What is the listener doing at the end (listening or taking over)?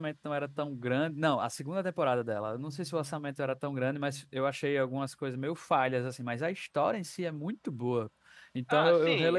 taking over